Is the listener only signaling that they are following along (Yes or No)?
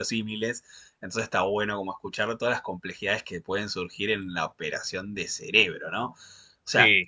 Yes